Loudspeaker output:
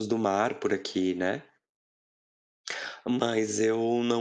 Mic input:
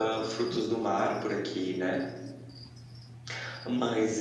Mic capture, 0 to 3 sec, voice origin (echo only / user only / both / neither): echo only